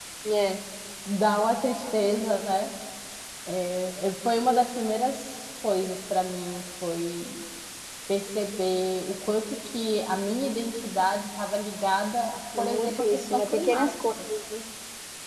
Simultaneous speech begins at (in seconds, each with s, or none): 12.5 s